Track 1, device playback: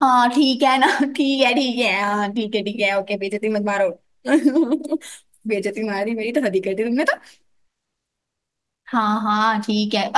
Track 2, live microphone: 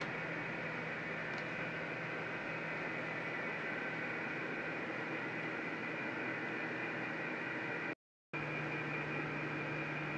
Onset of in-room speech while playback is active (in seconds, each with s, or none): none